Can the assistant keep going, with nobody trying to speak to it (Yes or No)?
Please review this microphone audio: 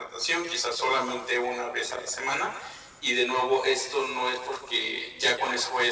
Yes